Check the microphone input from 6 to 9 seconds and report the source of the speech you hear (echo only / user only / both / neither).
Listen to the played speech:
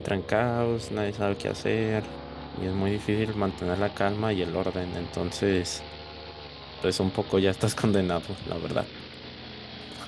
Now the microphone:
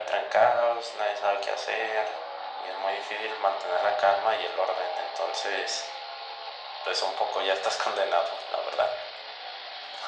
echo only